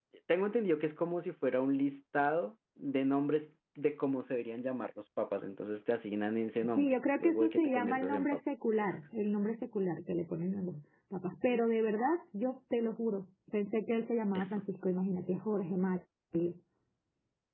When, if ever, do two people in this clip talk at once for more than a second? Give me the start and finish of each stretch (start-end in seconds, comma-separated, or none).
6.8-8.4